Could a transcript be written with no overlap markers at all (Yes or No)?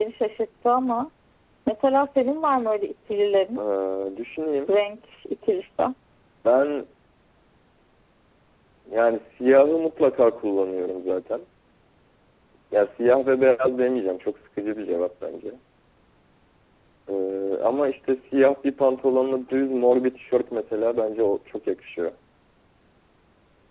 Yes